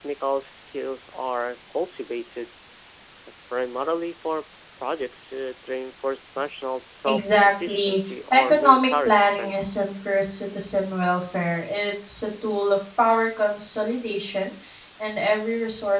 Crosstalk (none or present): present